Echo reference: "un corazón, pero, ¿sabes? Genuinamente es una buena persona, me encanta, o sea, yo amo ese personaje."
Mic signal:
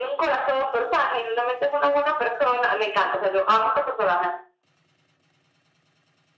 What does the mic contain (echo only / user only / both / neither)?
echo only